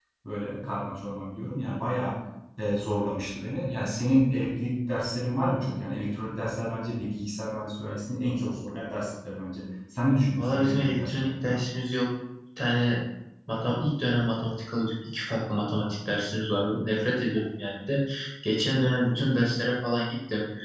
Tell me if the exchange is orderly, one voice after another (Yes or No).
No